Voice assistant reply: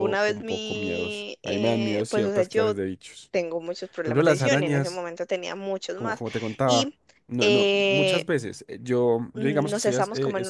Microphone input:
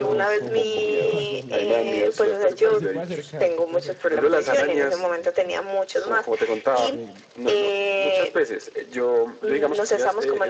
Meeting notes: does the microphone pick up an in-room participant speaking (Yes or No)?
Yes